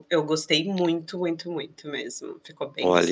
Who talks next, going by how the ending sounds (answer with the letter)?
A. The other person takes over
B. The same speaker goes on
A